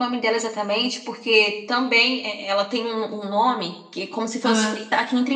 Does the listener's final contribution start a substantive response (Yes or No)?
No